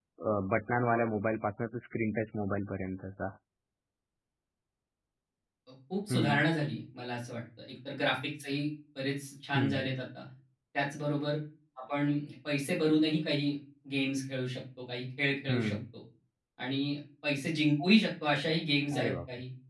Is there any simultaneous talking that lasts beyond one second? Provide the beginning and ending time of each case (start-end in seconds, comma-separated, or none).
none